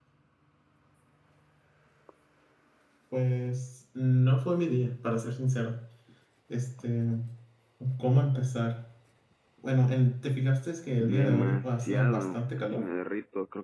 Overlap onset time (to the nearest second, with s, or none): 11 s